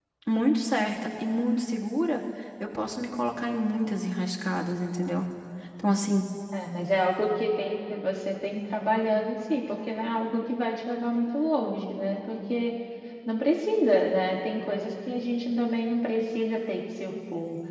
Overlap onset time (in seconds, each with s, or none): none